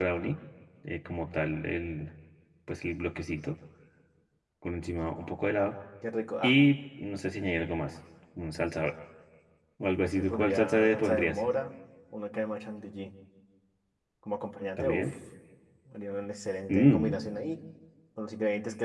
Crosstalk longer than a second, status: present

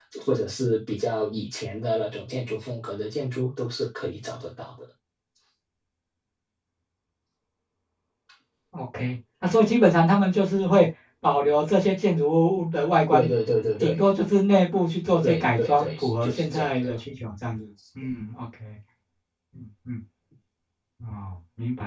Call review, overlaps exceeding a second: present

